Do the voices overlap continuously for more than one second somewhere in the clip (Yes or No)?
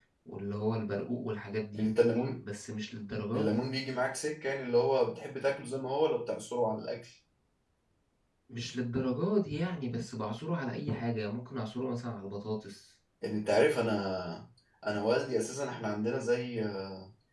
No